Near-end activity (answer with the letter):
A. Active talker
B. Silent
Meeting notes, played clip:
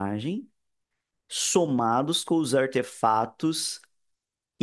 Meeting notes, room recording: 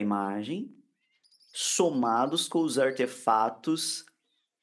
B